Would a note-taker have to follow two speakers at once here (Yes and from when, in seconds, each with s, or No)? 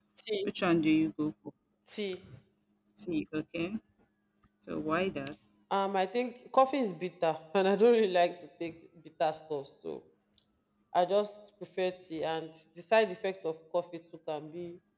No